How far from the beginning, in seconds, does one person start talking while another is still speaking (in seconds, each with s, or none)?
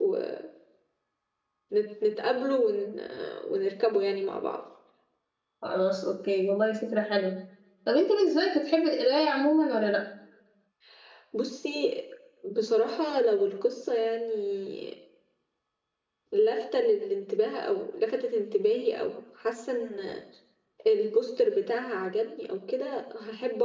none